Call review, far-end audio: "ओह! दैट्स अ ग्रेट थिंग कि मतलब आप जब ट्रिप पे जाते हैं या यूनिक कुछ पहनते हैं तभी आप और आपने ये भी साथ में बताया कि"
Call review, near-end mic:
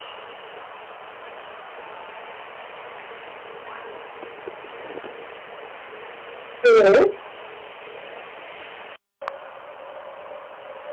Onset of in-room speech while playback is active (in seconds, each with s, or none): 6.6 s